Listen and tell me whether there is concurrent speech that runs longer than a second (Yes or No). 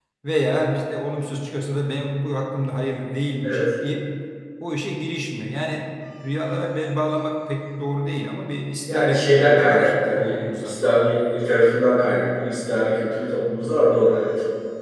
Yes